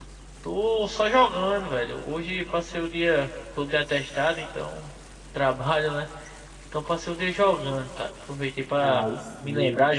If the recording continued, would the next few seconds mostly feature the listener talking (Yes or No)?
No